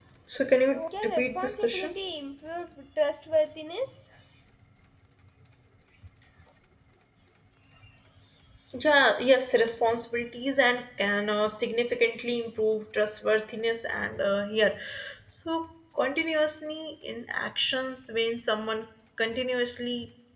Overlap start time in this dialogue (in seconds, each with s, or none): 0.7 s